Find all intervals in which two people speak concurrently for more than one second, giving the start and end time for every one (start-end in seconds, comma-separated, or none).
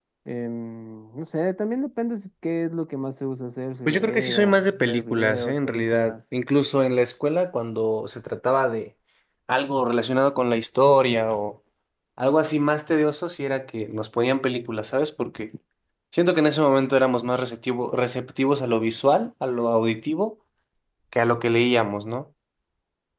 3.9-6.1